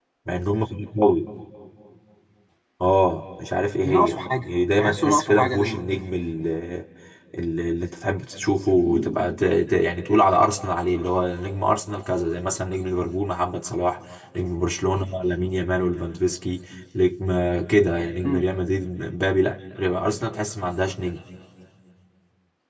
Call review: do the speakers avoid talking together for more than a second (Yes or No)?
No